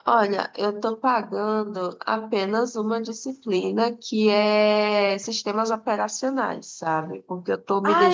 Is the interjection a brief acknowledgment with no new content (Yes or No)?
No